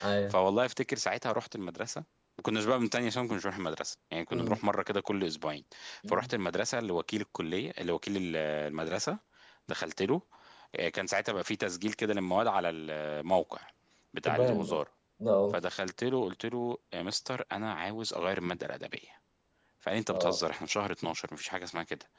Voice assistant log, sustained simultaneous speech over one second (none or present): none